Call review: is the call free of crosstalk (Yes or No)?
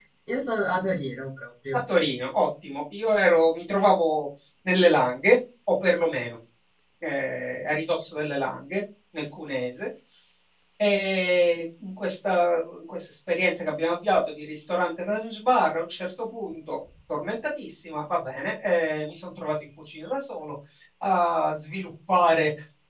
Yes